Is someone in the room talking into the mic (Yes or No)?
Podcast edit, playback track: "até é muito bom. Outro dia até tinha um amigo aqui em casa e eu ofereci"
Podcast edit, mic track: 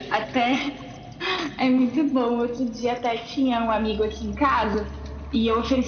No